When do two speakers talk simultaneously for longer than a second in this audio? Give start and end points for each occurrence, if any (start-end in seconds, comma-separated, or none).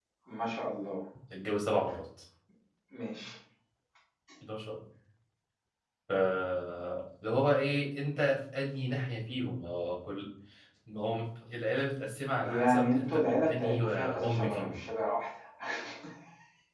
12.4-14.8